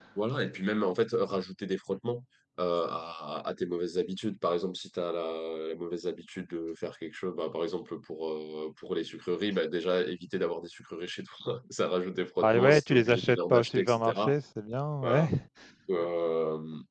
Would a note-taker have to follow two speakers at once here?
Yes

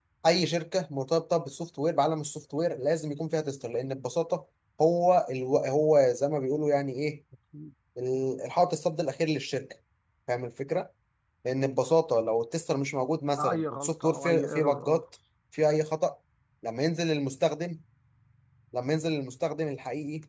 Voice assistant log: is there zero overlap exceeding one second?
No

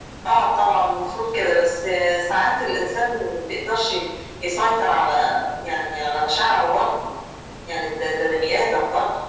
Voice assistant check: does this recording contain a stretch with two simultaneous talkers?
No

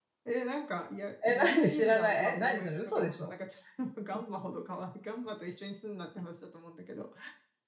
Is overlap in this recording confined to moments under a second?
No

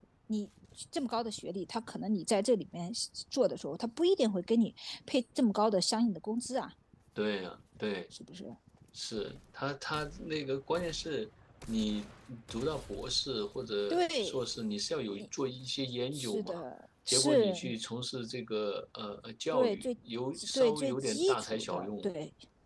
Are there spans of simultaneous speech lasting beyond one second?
Yes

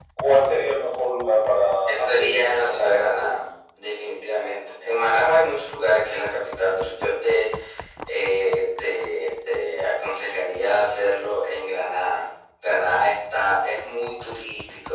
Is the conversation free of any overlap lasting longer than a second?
No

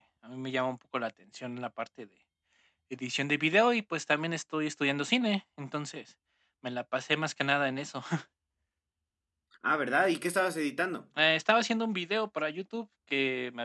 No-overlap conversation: Yes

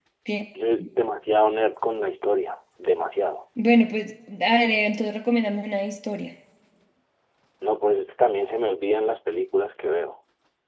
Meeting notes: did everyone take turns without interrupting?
Yes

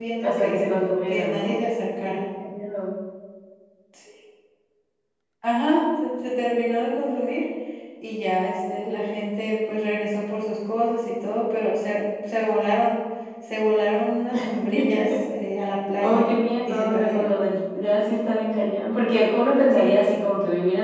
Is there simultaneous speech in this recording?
Yes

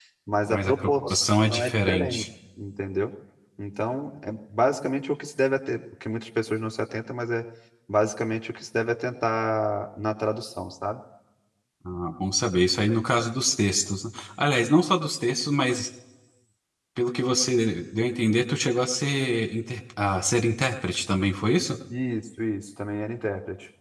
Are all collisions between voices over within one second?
No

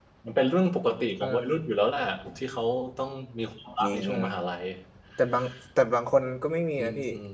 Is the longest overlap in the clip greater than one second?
No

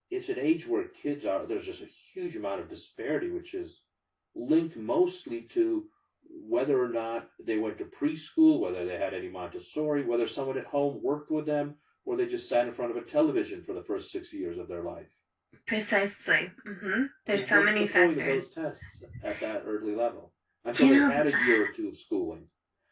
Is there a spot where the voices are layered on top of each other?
Yes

